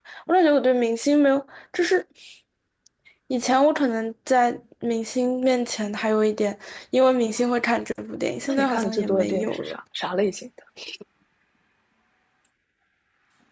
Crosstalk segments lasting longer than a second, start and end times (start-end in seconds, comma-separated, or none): 8.4-9.7